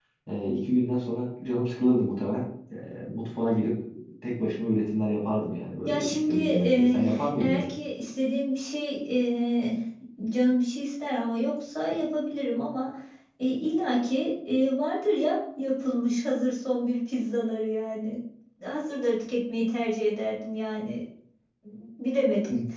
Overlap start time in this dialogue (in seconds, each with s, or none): 5.9 s